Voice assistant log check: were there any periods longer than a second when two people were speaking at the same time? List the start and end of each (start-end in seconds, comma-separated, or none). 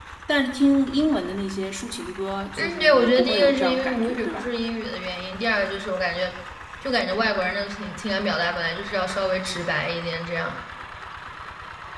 2.6-4.5